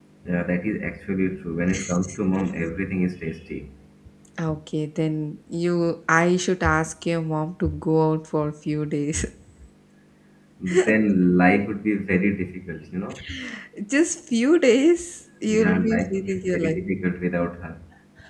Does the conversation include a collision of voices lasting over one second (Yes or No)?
Yes